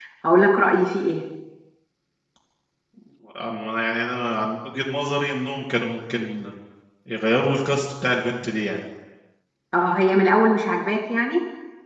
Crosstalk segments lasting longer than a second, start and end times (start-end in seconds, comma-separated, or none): none